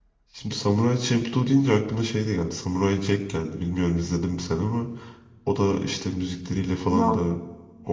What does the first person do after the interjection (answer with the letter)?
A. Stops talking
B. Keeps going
B